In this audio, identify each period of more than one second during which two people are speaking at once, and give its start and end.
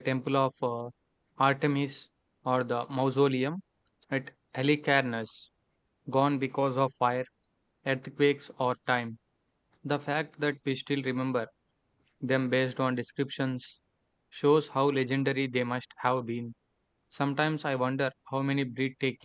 none

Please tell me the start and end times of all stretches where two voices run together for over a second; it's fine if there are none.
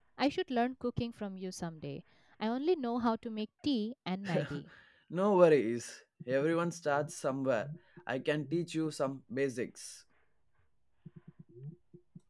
none

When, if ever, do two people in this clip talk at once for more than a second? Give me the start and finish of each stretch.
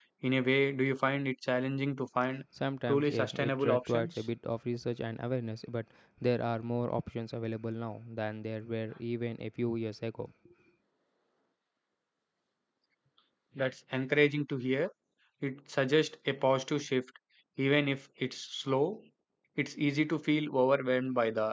2.9-4.2

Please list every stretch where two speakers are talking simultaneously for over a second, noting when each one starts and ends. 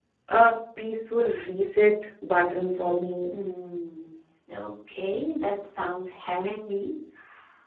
none

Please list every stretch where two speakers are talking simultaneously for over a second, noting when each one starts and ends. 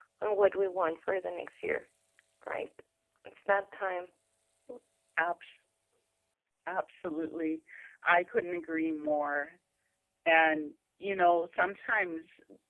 none

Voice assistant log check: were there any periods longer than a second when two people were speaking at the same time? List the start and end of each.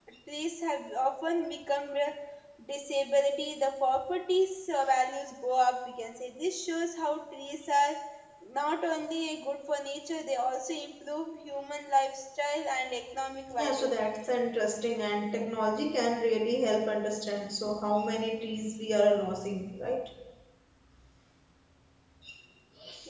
none

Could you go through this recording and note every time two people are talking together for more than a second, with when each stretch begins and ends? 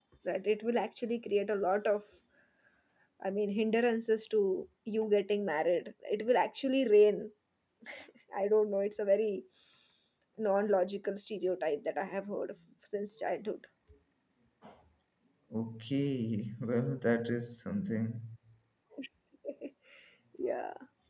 none

